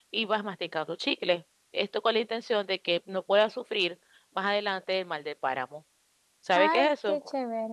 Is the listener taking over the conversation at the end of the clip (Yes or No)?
Yes